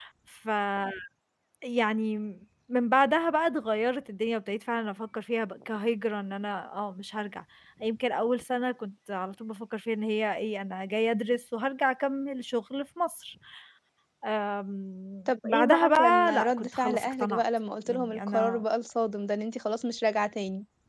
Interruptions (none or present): present